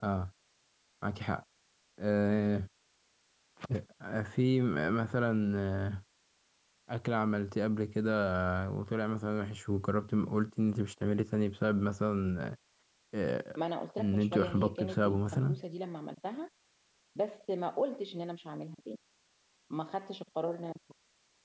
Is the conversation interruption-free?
No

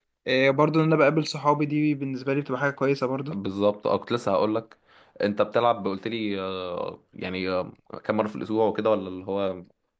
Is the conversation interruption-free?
Yes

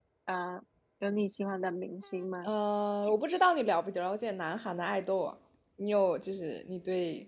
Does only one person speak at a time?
Yes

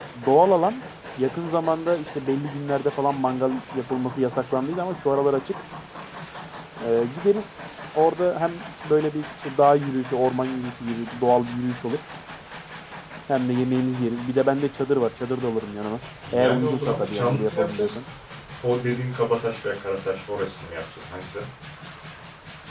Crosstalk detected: Yes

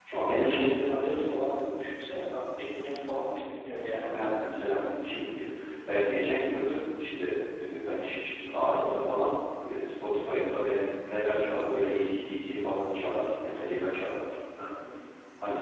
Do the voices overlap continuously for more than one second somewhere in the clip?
No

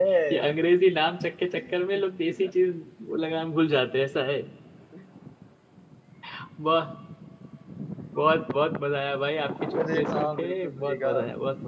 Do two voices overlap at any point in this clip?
Yes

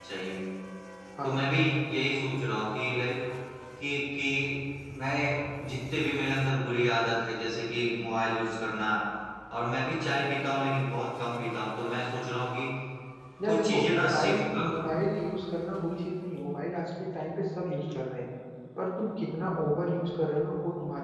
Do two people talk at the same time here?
Yes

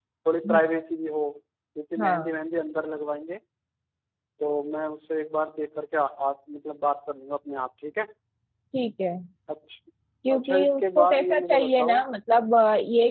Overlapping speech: Yes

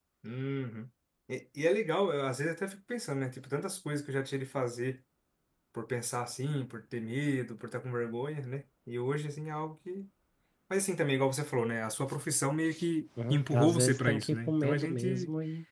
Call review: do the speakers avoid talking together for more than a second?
No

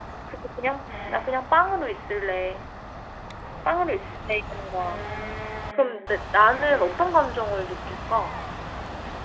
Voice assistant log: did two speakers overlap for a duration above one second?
No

